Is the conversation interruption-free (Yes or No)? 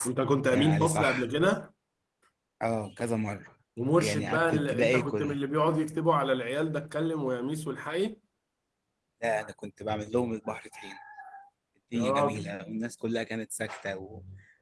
No